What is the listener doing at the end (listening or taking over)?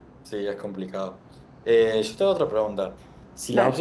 listening